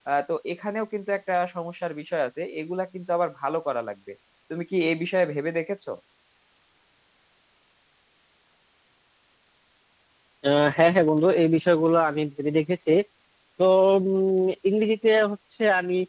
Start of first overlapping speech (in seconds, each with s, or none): none